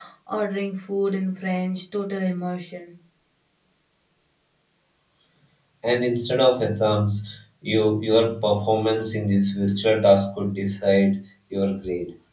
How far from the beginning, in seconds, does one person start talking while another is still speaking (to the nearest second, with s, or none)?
none